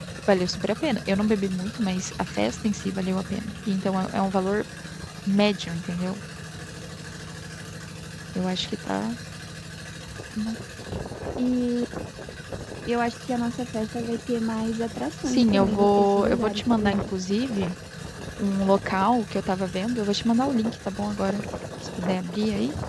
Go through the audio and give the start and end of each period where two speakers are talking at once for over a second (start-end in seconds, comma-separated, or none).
15.2-17.0